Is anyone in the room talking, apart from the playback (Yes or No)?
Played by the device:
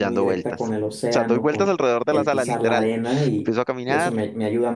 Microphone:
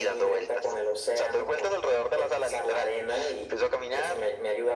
No